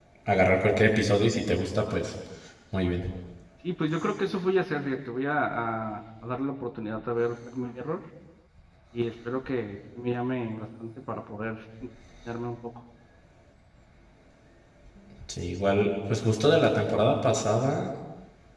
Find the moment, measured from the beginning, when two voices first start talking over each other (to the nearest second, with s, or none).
none